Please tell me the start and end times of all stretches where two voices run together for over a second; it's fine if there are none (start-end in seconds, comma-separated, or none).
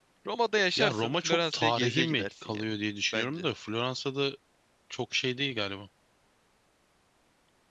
0.8-2.7